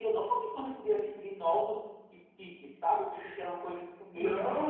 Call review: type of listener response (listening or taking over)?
taking over